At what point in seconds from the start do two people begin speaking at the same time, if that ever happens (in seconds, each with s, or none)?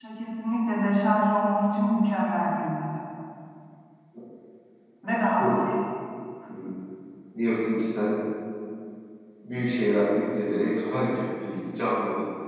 none